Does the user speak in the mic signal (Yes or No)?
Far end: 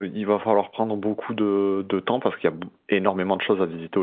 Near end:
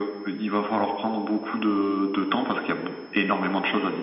No